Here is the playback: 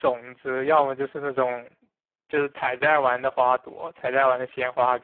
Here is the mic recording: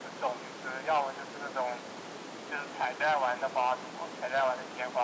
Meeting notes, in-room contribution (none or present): none